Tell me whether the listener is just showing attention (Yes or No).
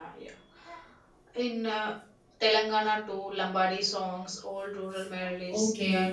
No